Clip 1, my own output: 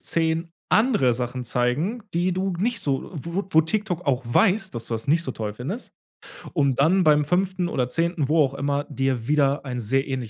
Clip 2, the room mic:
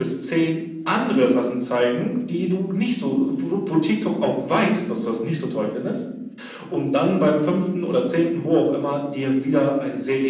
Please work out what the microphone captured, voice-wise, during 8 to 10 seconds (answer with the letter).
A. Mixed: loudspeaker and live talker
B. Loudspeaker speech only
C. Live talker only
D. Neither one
B